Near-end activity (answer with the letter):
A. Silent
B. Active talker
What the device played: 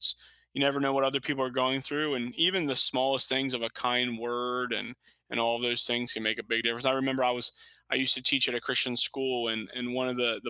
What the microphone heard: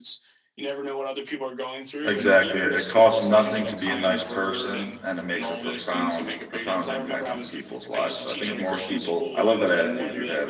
B